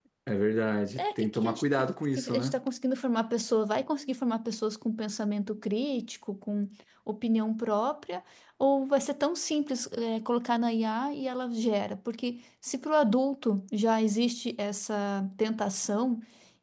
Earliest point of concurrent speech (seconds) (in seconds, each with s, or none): 1.0 s